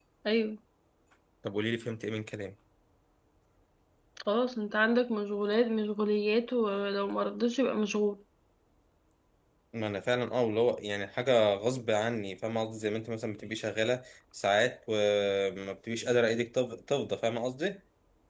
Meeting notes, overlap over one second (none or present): none